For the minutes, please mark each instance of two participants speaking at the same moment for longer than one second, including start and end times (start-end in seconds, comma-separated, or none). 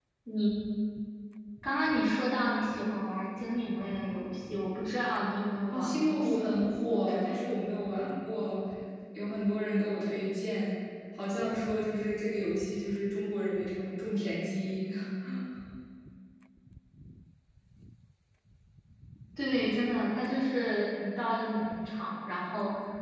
5.7-7.4